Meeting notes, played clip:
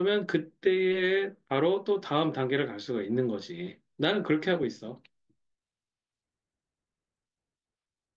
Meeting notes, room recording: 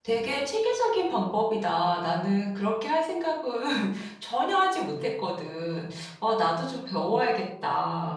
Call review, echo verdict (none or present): none